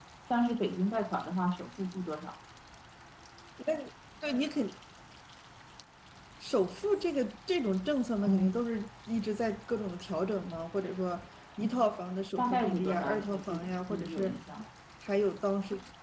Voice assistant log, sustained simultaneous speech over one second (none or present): present